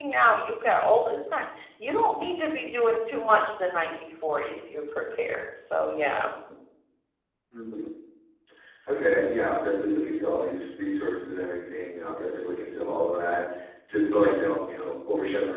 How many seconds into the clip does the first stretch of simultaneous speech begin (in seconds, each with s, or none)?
none